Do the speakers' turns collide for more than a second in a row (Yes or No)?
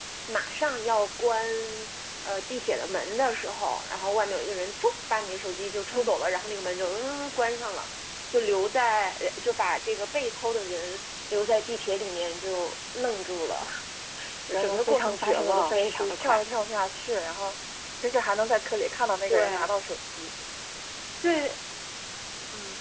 Yes